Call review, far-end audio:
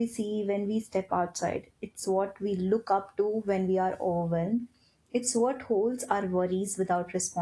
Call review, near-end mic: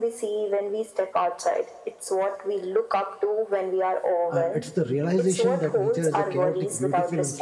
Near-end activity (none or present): present